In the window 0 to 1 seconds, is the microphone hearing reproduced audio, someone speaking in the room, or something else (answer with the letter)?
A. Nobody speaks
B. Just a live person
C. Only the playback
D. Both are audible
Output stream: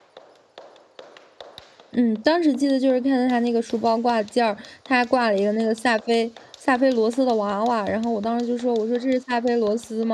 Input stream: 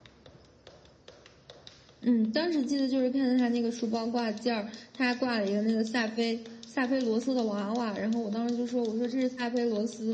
A